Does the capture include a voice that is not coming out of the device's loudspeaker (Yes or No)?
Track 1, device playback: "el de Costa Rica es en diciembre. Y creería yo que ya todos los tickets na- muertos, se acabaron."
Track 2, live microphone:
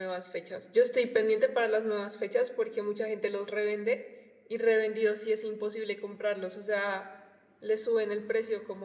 Yes